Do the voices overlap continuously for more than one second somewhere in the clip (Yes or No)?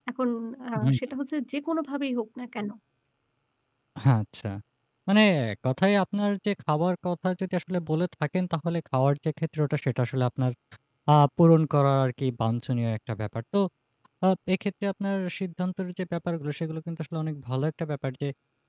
No